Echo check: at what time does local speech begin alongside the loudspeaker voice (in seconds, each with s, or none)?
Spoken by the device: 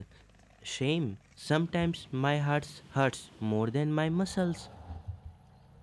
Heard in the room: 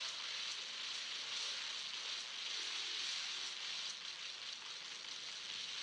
none